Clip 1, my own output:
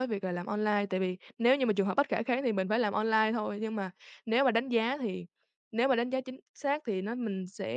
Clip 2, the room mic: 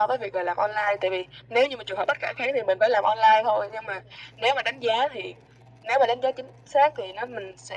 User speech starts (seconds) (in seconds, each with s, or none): none